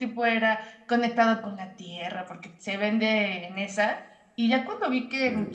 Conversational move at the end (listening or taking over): listening